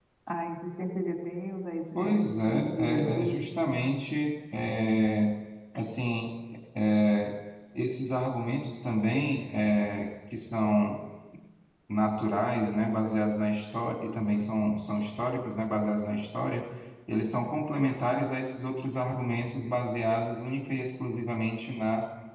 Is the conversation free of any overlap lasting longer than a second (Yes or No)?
No